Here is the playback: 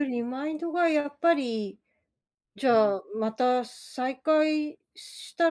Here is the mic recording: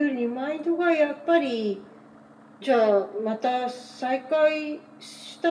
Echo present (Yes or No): Yes